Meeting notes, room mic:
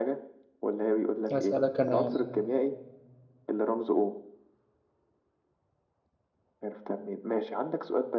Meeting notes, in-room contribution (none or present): present